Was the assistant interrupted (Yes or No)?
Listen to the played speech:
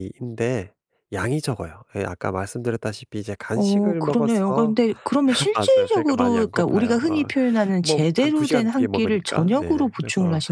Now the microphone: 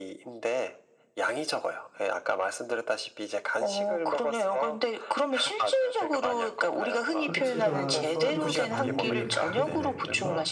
Yes